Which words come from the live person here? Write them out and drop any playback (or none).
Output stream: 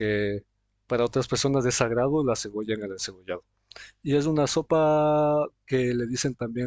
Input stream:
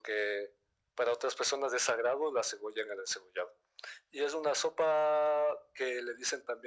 none